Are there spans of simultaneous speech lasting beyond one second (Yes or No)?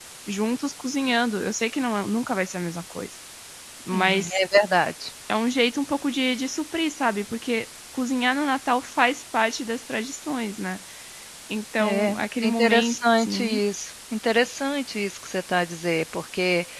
Yes